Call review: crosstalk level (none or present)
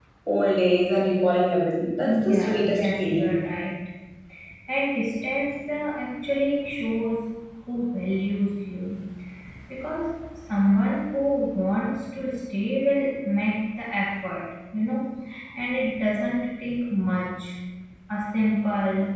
present